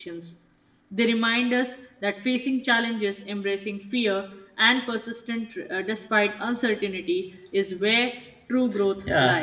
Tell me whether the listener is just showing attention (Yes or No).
No